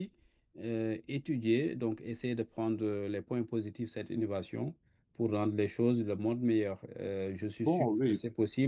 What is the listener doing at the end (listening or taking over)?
listening